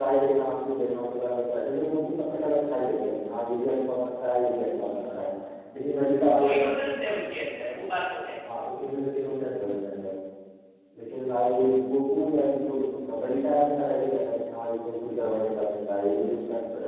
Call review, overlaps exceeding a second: none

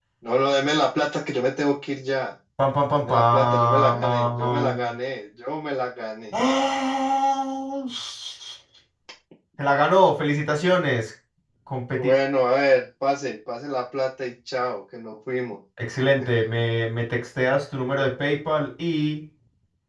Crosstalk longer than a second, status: present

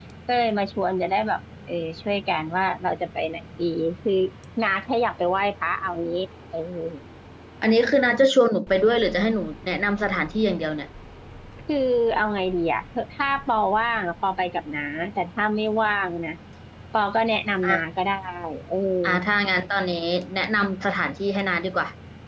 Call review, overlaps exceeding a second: none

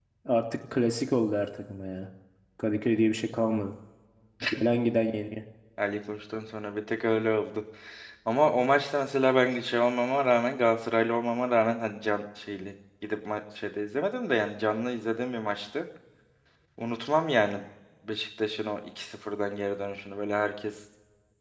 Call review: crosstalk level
none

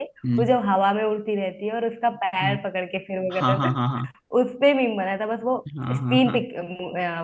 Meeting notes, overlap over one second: none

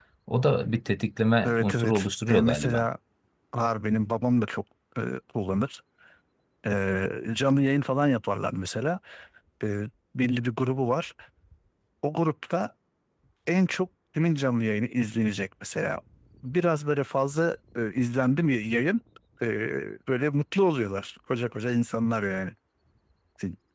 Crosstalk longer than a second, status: present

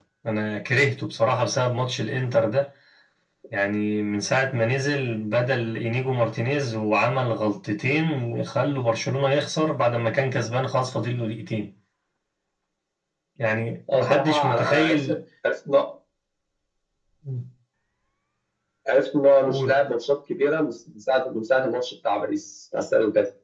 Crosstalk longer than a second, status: present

